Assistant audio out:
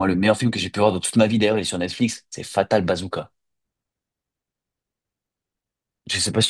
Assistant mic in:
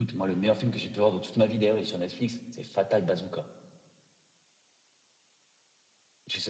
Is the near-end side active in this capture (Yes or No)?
No